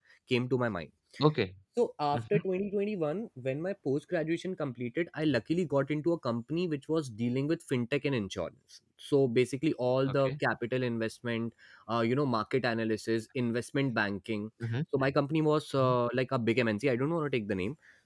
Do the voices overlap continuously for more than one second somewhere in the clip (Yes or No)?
No